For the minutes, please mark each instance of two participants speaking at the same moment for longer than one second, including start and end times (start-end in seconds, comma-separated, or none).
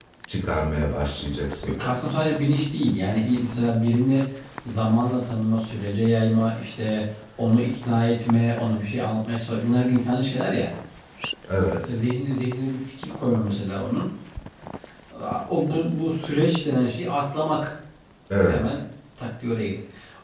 none